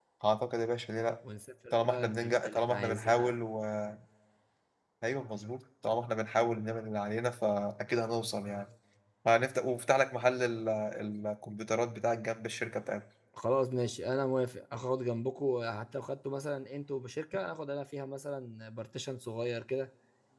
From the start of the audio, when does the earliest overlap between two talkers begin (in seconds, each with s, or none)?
1.7 s